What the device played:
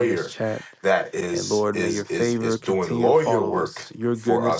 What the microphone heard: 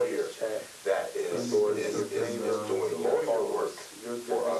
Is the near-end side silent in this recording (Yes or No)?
No